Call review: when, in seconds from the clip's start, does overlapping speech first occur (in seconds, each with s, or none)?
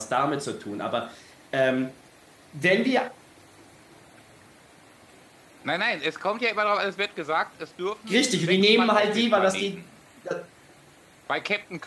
8.1 s